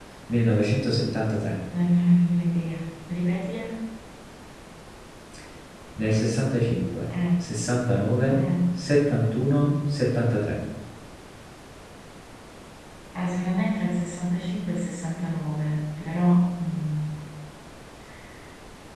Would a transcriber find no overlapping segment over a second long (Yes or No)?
Yes